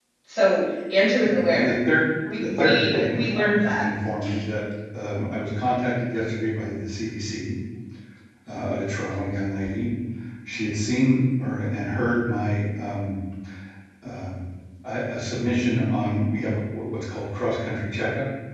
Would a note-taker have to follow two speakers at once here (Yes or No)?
Yes